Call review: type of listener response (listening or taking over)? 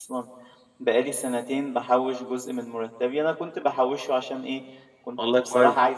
listening